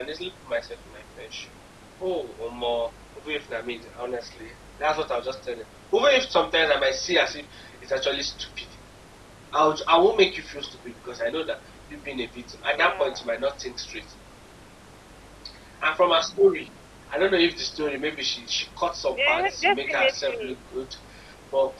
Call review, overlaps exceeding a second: present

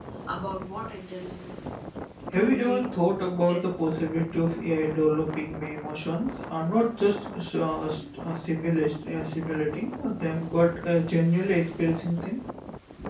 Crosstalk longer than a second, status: none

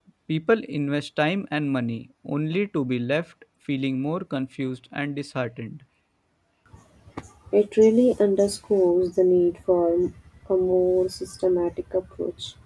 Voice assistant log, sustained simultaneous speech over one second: none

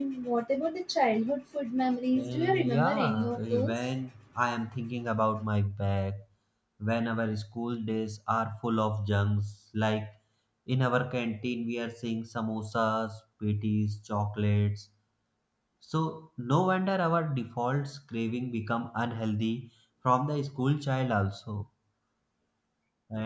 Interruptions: present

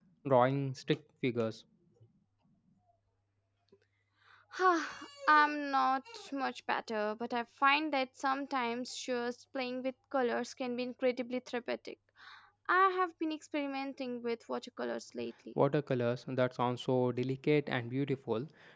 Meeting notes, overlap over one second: none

